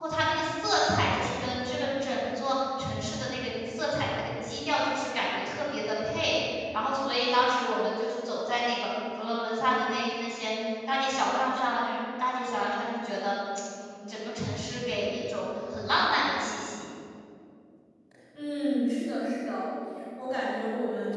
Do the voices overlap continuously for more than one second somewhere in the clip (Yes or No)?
No